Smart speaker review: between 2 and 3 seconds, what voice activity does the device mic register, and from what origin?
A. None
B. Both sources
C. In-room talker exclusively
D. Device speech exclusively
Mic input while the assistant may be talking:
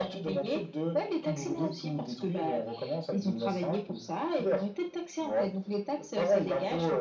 D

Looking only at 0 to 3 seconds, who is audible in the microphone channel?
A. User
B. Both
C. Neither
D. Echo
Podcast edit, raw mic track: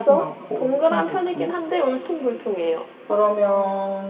B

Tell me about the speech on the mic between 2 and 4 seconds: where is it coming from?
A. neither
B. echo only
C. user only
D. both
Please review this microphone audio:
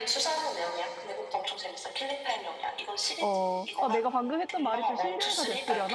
D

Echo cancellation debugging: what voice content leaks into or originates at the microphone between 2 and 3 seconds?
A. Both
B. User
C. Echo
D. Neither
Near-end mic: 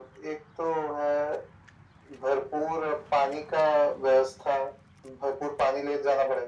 C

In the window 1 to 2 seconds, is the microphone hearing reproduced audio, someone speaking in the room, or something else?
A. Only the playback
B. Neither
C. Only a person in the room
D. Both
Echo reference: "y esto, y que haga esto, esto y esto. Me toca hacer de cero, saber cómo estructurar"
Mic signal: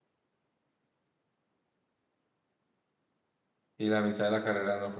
B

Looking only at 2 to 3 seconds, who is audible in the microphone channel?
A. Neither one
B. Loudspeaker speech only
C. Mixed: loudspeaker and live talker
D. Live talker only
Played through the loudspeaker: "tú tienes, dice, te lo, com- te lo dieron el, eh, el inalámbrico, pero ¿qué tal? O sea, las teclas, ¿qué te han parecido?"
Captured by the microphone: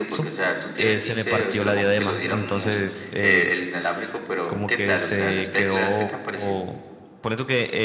C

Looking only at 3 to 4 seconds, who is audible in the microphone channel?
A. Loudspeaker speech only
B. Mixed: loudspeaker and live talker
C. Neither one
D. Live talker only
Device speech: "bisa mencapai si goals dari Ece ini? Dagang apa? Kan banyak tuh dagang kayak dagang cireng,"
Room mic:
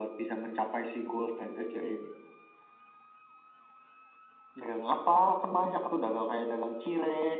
C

